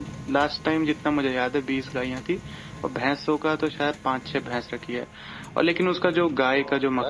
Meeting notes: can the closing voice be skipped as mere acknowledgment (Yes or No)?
Yes